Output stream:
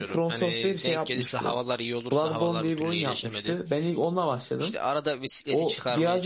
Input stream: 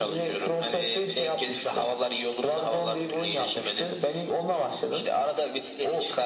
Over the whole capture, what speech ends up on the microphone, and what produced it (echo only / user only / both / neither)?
echo only